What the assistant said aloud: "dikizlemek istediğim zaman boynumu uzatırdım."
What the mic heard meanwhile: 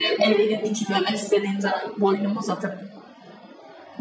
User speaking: No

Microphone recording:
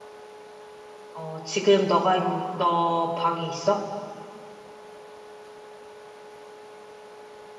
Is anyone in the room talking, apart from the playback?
Yes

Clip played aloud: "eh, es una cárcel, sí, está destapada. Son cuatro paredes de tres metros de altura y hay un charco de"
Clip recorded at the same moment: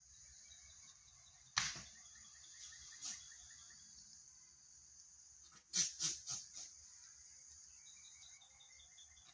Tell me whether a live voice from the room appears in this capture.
No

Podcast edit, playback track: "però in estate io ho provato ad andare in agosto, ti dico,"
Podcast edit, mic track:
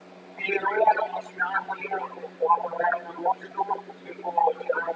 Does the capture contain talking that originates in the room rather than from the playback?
No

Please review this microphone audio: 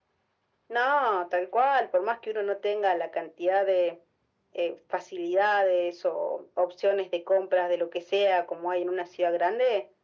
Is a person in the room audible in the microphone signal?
No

